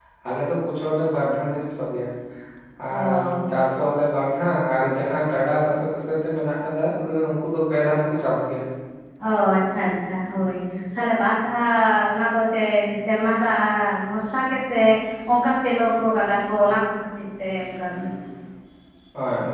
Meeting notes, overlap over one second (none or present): none